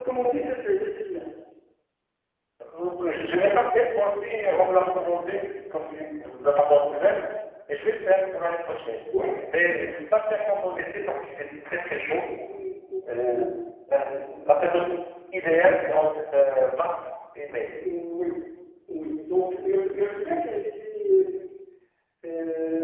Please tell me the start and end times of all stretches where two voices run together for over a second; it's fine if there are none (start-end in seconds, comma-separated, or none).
none